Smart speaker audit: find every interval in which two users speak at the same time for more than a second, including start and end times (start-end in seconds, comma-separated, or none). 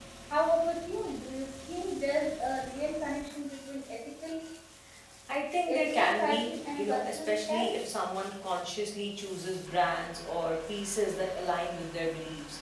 5.7-7.7